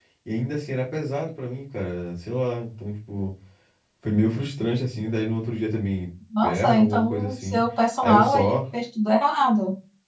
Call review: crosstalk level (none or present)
present